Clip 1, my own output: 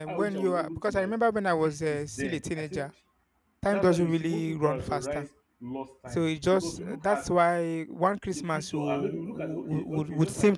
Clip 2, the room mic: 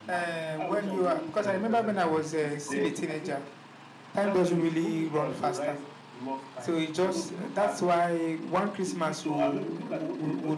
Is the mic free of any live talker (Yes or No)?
No